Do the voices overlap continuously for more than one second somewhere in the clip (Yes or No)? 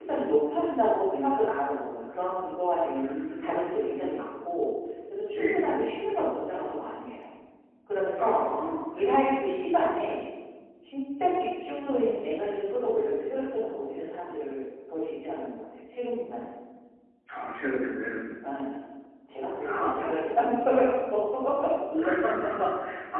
No